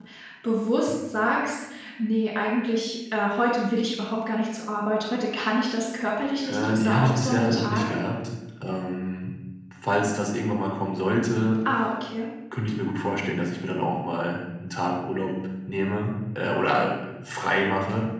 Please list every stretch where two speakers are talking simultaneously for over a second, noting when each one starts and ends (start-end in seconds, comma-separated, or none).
6.5-8.0